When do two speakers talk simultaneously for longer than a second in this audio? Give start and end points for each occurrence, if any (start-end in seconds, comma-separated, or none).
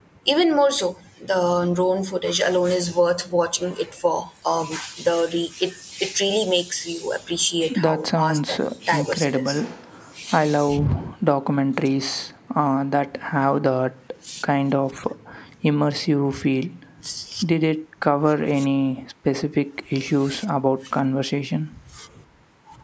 7.8-9.6